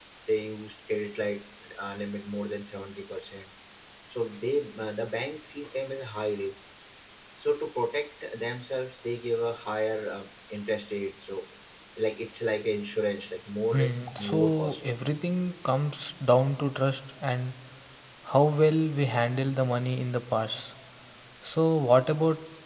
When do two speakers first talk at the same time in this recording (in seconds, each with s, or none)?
13.7 s